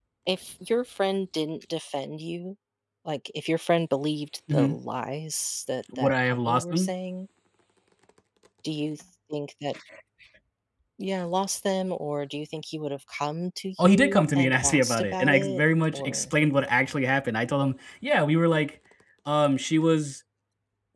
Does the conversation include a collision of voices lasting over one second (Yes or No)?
Yes